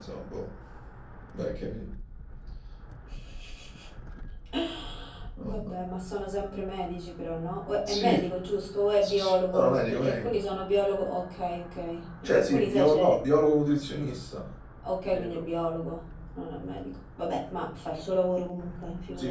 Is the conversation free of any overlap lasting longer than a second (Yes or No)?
No